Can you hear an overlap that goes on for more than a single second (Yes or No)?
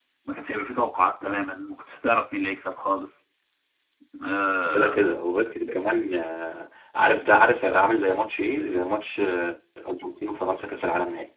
No